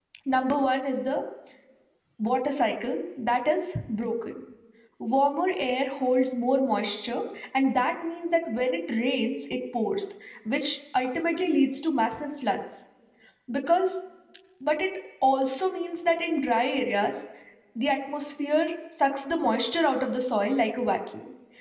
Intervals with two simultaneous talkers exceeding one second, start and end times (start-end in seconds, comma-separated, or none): none